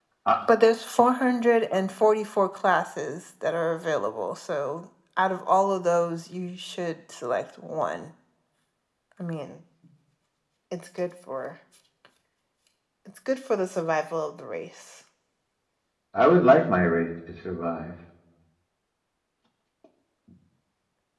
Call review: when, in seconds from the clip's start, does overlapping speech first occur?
none

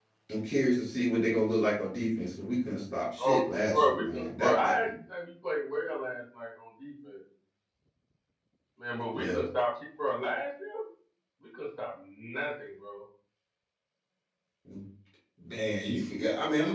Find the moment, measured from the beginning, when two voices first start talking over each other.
3.2 s

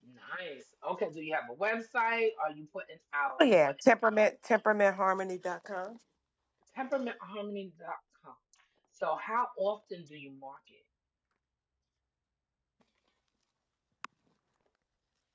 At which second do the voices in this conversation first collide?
none

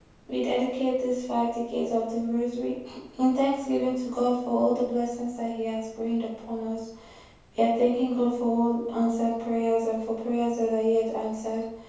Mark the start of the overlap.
none

